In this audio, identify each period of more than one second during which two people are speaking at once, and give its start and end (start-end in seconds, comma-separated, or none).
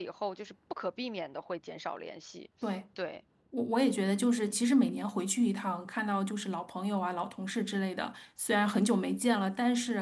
none